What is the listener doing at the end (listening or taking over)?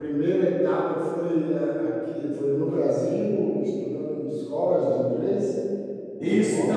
taking over